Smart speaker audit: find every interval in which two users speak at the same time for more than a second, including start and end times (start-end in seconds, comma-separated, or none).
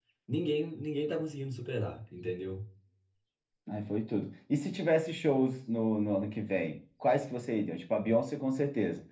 none